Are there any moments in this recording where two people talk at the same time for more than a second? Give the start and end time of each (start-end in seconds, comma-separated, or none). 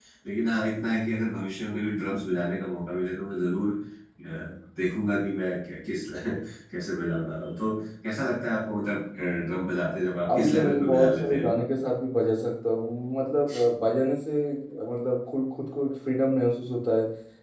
10.3-11.6